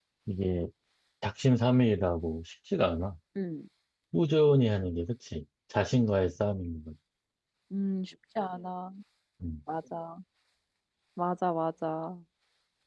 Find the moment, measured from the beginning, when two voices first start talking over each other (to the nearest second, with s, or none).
none